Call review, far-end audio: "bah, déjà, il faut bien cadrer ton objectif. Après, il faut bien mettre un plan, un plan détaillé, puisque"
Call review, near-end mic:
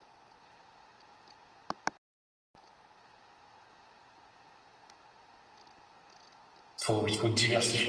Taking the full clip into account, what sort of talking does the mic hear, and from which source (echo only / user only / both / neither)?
user only